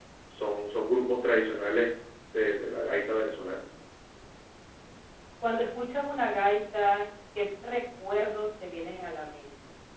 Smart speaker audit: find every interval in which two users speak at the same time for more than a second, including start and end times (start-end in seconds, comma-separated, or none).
none